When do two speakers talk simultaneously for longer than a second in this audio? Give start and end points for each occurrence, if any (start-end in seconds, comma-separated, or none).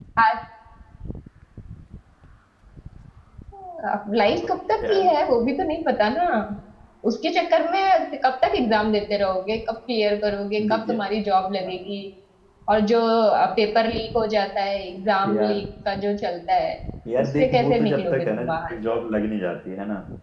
17.2-18.7